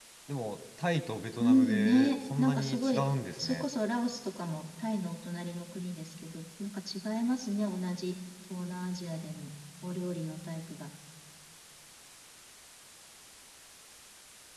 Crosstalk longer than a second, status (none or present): present